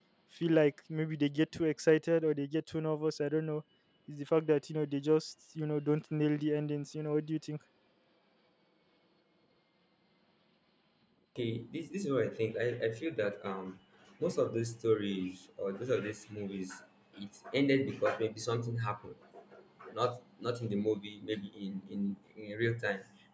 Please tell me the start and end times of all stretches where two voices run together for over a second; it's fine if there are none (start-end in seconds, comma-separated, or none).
none